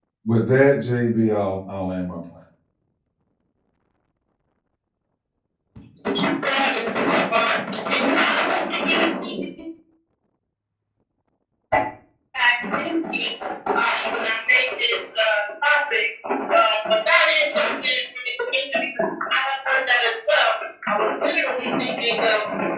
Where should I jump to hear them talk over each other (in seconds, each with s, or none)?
none